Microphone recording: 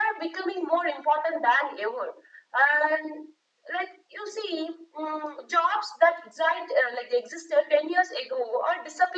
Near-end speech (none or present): none